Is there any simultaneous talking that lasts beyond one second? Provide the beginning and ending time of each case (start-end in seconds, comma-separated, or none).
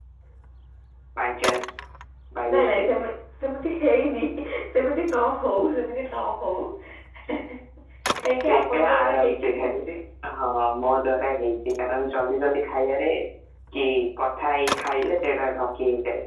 8.6-9.8